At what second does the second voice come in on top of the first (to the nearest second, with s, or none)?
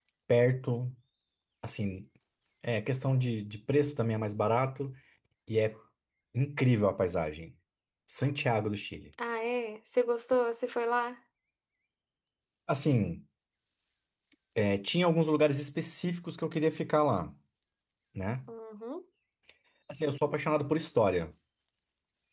none